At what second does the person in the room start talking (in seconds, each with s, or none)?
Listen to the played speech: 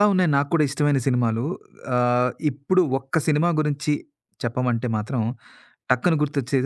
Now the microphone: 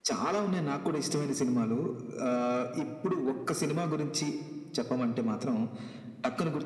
none